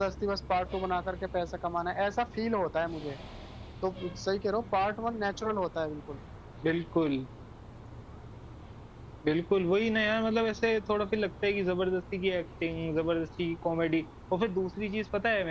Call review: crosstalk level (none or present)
none